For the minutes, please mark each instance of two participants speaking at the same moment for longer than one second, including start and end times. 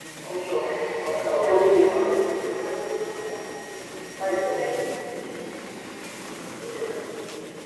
1.1-2.7

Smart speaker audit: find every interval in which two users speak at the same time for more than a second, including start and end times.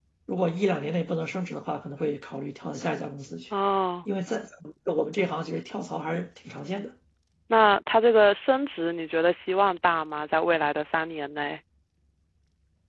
none

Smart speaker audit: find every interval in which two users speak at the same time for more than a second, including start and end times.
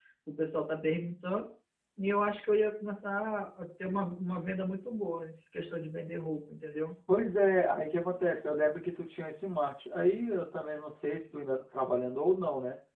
none

